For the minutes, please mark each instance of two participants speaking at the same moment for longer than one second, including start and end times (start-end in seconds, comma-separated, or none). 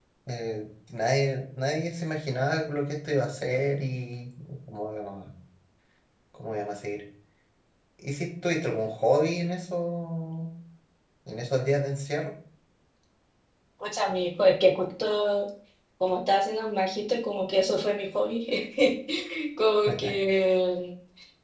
none